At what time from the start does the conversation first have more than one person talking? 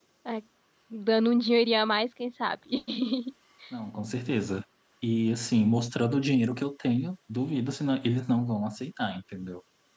none

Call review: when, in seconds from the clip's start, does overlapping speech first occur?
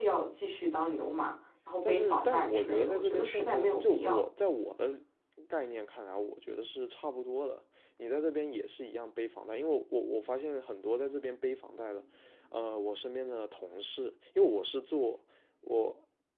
2 s

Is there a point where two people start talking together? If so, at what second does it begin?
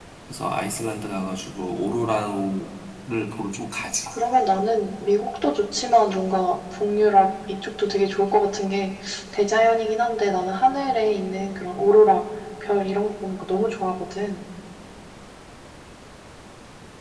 none

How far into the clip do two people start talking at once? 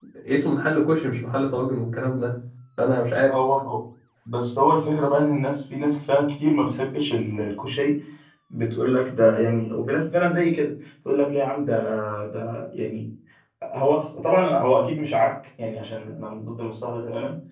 none

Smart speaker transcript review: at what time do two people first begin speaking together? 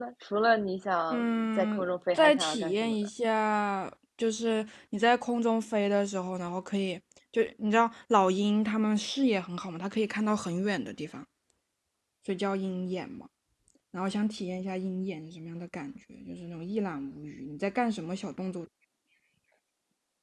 1 s

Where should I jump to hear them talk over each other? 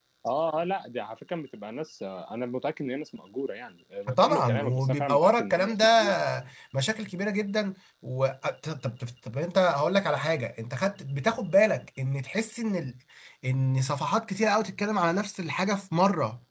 4 s

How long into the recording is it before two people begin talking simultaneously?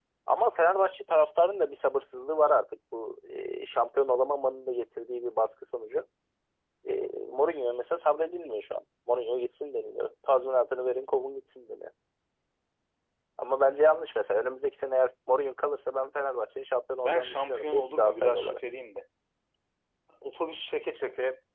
17 s

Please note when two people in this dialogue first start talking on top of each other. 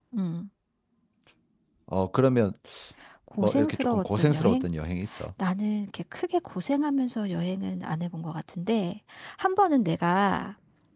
3 s

